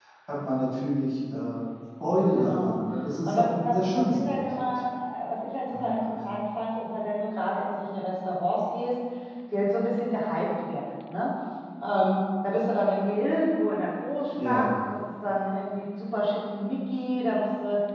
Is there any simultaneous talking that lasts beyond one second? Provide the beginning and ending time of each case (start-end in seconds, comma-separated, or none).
3.2-4.8